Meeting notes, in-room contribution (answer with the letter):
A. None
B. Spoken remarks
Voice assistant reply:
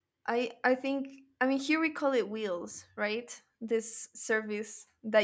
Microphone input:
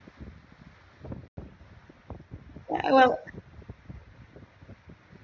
B